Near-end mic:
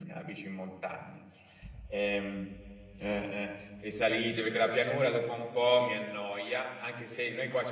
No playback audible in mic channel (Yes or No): Yes